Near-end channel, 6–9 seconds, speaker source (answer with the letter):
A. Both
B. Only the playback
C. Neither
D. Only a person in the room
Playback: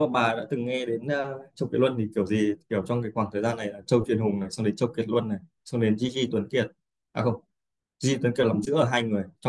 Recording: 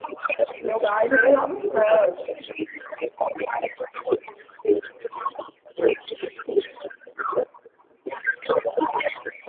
B